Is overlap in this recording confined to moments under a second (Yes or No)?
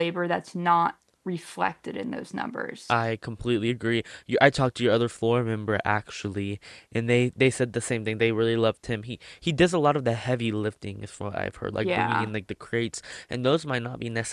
Yes